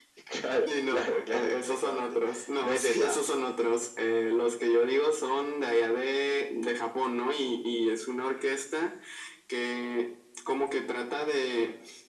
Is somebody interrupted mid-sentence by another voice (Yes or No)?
Yes